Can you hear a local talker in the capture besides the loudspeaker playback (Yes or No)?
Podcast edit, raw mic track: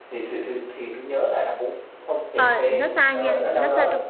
Yes